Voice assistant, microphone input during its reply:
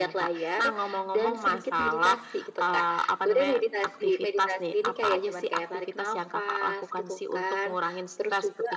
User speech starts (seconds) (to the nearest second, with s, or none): none